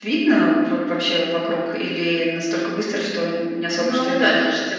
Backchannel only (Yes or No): No